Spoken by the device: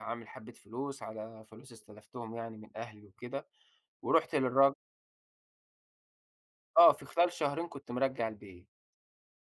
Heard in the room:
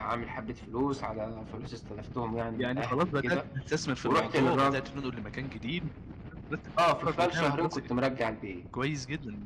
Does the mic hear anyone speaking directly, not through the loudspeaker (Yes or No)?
Yes